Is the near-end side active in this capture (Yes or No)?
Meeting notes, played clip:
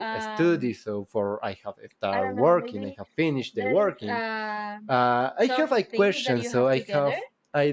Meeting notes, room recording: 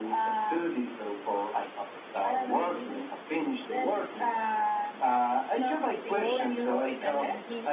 Yes